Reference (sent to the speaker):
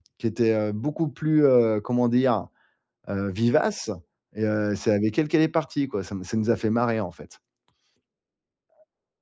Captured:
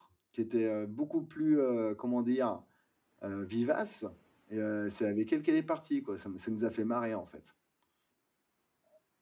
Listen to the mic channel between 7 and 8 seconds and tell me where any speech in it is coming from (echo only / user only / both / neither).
echo only